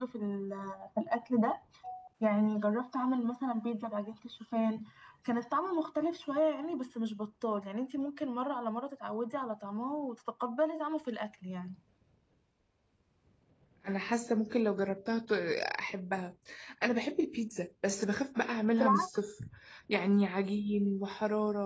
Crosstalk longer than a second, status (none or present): none